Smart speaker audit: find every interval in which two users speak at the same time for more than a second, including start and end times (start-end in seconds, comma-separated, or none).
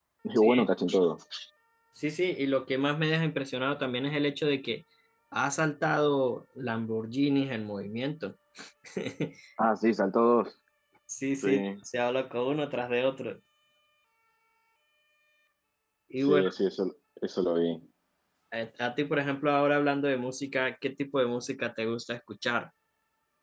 none